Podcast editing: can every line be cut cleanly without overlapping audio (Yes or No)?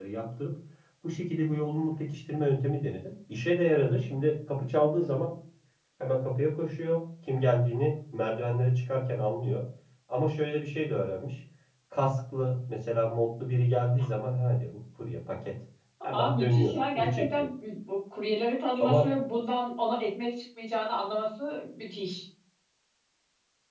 No